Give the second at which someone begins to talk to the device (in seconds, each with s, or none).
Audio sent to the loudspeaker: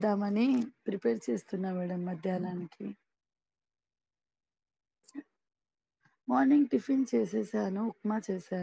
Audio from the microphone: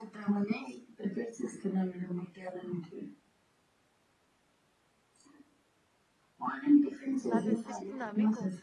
7.3 s